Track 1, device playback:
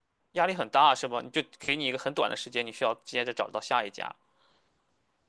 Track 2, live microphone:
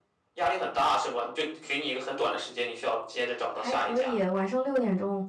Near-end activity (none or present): present